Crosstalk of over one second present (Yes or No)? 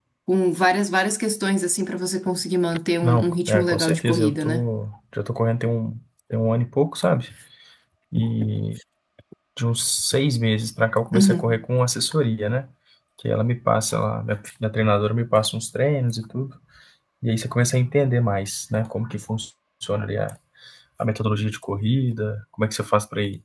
Yes